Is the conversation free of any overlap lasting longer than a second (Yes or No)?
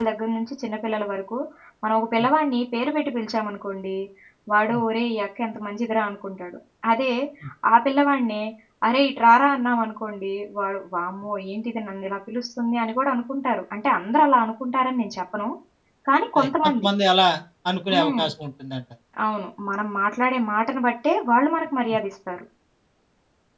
Yes